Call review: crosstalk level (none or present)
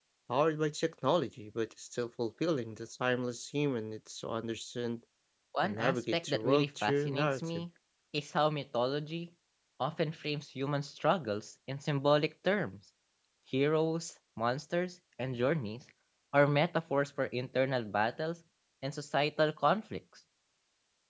present